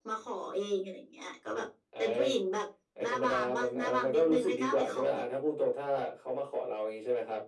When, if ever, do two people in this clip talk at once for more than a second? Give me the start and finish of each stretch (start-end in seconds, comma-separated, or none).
3.0-5.0